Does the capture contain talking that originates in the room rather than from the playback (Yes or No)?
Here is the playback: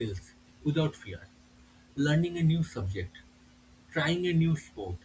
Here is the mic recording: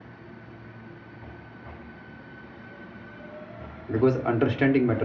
Yes